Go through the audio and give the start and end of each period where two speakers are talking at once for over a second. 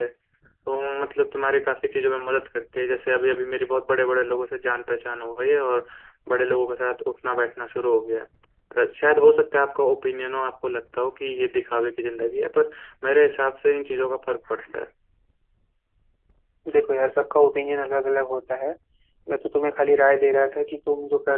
none

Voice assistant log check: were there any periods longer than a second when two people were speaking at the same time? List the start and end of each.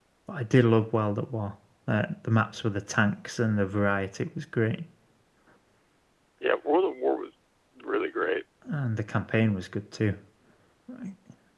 none

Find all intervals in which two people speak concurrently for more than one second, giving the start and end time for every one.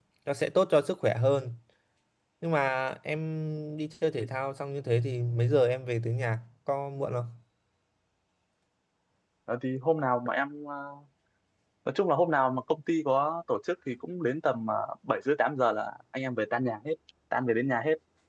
none

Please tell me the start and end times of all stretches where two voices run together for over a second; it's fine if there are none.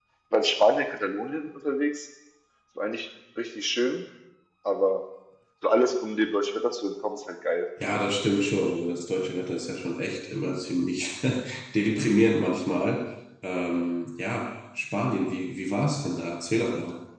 none

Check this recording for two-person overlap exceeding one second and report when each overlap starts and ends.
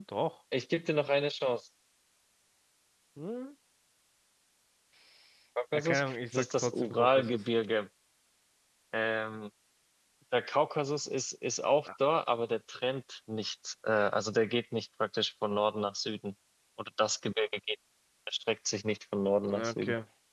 5.7-7.4

